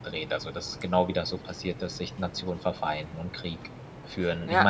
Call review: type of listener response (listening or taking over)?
taking over